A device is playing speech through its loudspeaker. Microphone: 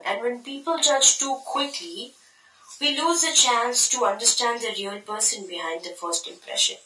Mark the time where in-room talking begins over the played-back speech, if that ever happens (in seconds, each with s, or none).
none